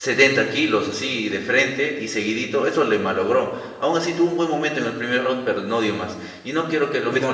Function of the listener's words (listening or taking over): listening